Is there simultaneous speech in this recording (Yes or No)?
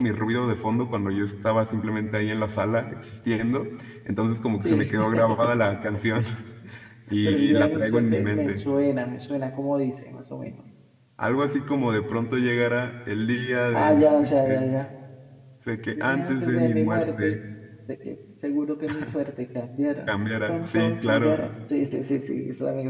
Yes